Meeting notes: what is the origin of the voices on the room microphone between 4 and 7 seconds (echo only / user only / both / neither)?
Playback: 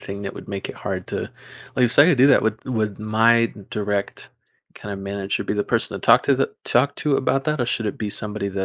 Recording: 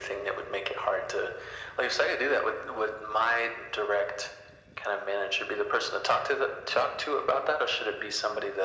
echo only